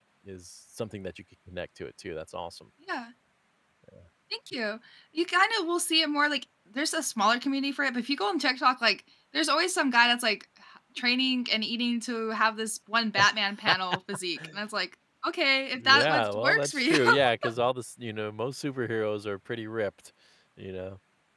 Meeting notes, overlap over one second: present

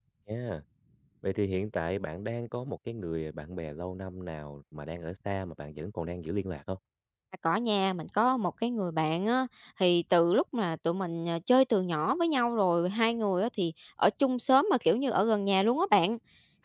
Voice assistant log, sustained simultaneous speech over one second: none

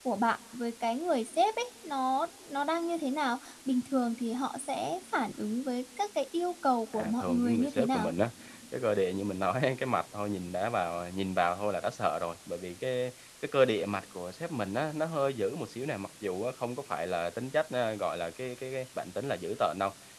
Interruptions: present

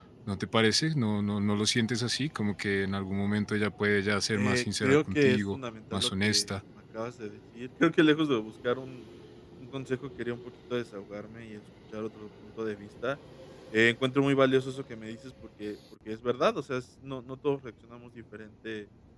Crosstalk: present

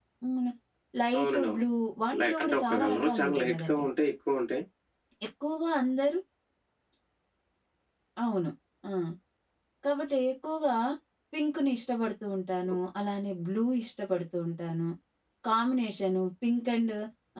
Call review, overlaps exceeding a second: present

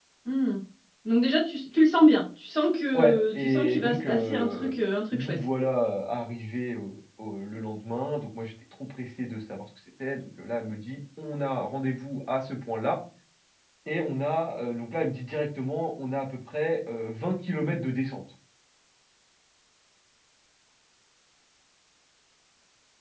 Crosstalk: present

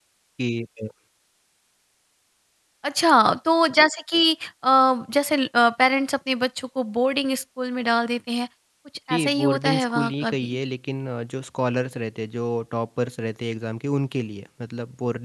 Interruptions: present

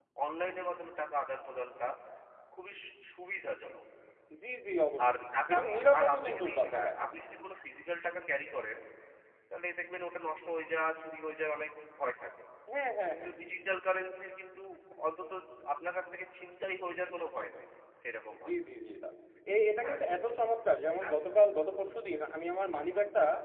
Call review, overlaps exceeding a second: present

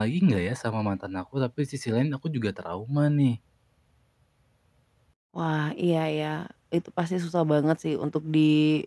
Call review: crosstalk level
none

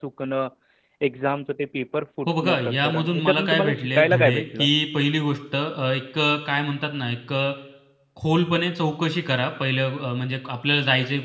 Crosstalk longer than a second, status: present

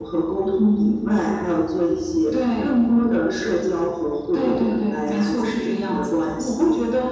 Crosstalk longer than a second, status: present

